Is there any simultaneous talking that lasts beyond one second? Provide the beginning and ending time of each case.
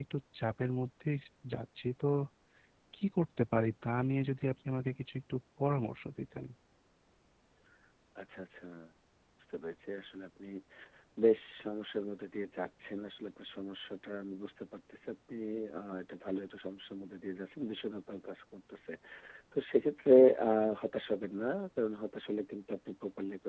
none

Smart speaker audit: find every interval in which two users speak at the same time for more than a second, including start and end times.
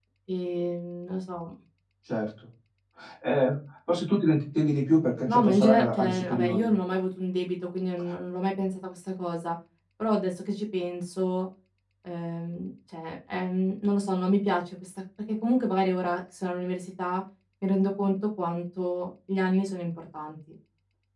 5.3-6.7

